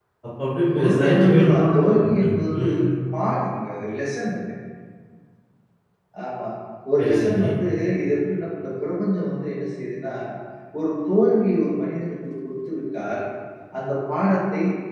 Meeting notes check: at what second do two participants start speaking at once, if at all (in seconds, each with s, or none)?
0.8 s